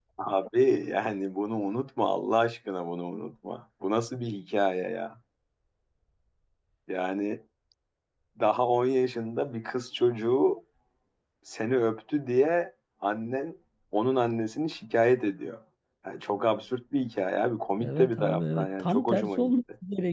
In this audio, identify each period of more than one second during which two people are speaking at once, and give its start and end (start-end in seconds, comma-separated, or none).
17.8-19.5